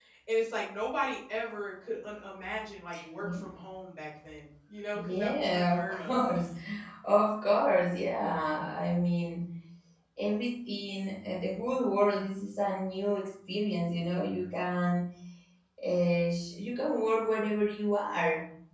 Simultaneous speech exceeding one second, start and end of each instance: 5.0-6.2

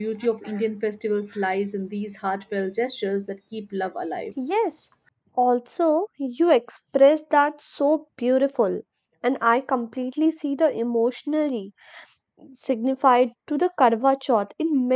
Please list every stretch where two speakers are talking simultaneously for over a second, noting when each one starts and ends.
none

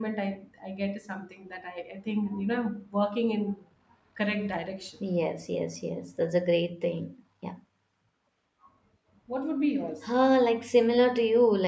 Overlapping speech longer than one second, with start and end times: none

